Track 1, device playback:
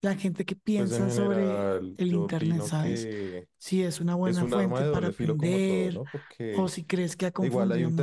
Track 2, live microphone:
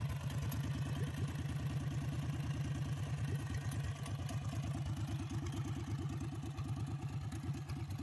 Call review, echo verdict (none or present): none